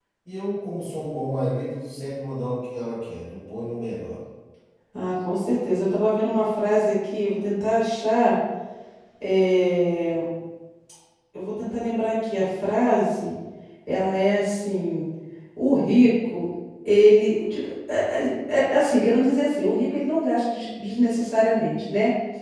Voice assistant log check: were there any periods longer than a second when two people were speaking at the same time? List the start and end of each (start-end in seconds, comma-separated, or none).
none